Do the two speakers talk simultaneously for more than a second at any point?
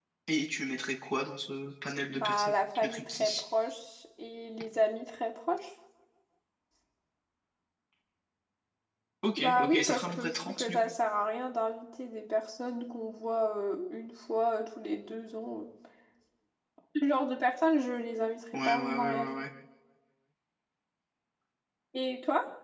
Yes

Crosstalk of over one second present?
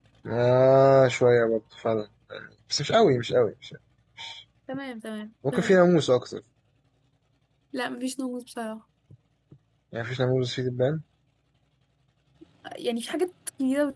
No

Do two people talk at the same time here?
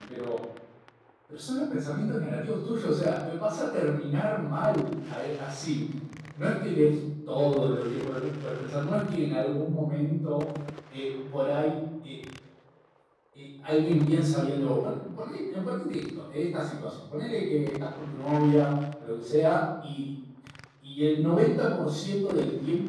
No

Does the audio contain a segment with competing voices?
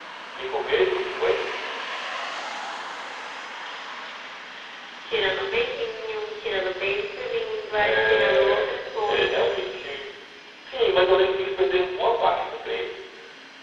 Yes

